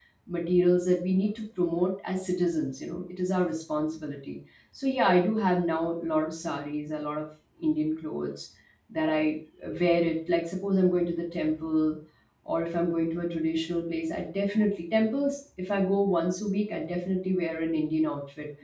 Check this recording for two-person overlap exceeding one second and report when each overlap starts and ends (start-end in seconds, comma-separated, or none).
none